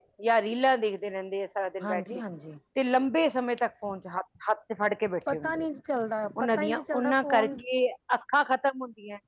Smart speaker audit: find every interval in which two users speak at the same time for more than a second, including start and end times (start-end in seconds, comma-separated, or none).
6.4-7.6